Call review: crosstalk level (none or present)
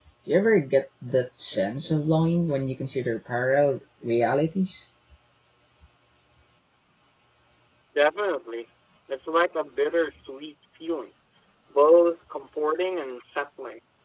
none